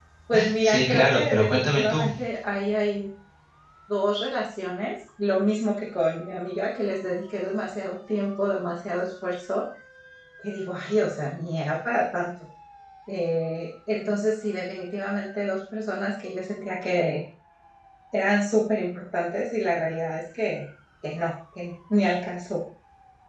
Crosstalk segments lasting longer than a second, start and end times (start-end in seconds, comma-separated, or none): 0.6-2.1